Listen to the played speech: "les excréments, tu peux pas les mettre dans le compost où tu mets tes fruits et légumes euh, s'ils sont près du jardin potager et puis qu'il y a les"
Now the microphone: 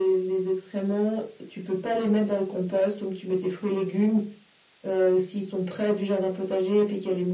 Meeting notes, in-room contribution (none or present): none